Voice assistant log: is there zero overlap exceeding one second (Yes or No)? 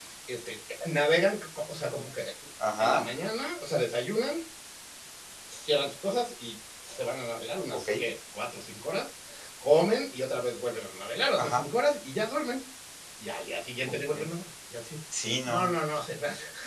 Yes